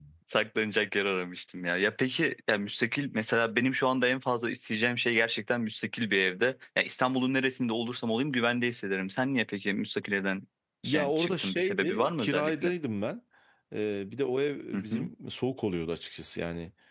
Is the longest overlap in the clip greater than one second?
Yes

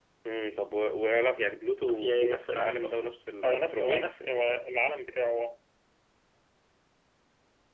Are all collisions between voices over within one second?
No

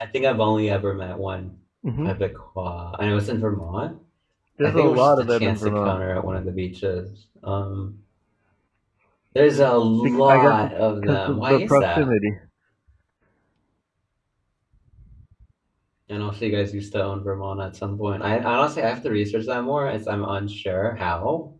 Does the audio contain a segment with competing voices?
Yes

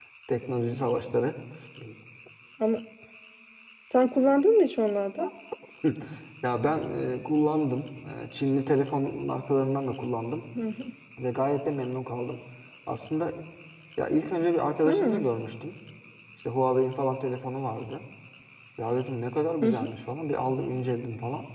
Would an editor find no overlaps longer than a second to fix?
Yes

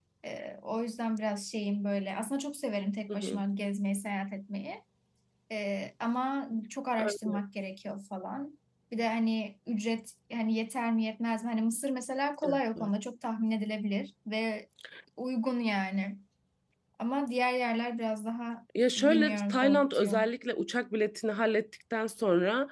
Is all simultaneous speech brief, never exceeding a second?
No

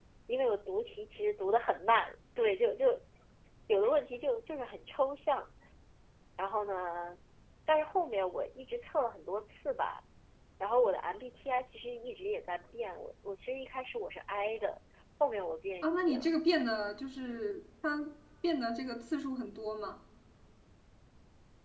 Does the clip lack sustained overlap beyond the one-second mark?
Yes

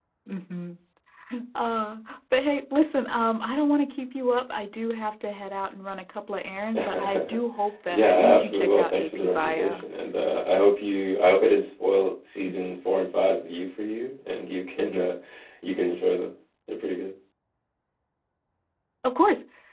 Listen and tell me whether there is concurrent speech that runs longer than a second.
Yes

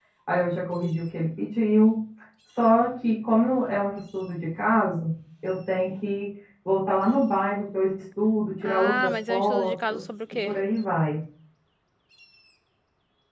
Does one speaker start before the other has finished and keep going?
Yes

